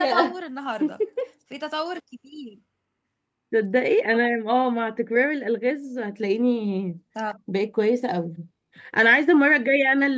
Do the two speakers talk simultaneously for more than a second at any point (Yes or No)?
No